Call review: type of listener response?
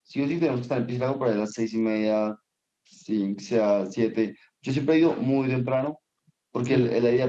listening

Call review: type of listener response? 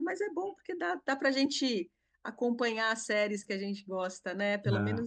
taking over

